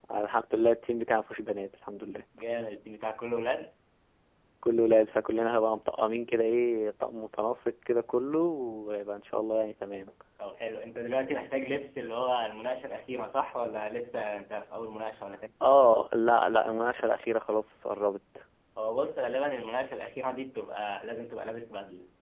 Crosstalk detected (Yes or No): No